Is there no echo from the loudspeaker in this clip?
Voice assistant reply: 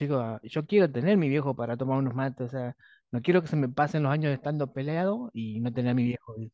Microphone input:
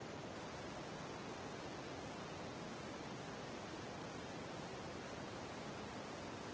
Yes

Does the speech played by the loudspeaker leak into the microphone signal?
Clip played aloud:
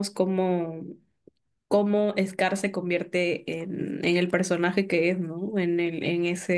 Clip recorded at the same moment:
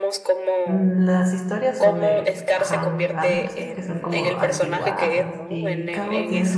Yes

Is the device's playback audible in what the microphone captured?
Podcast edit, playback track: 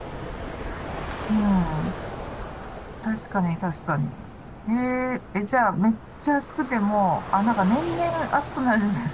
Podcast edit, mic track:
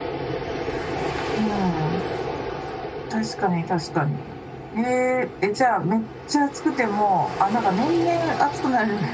Yes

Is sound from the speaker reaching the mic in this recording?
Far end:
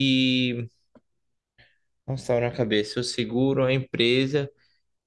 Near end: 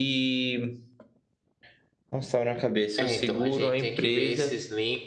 Yes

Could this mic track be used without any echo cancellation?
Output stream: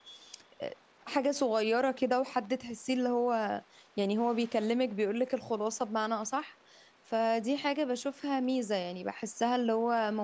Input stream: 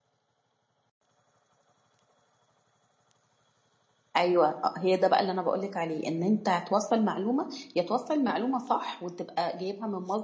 Yes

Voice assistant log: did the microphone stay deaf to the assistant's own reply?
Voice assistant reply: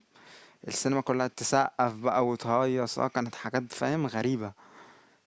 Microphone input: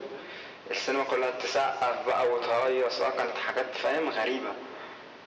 No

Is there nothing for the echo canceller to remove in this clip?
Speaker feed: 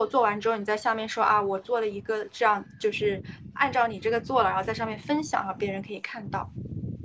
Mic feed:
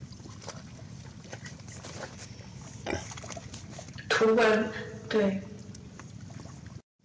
Yes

